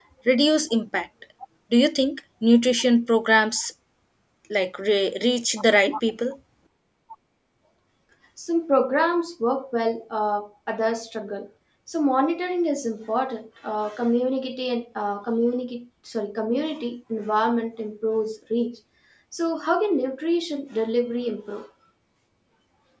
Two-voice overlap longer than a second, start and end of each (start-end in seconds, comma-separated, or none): none